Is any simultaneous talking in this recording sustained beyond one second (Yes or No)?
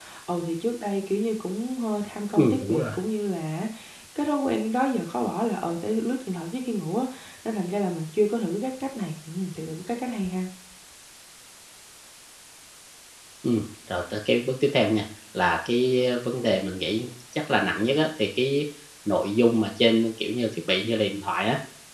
No